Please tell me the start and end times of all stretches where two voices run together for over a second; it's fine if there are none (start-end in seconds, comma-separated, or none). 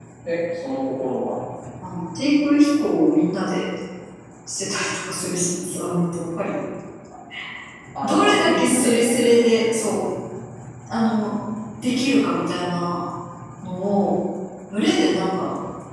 8.0-9.9